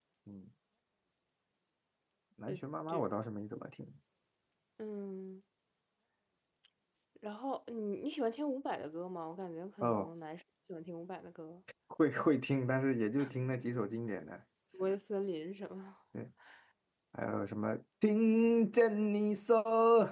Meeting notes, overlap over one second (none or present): none